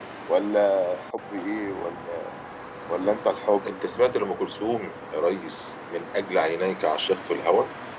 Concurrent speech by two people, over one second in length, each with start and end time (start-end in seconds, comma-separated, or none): none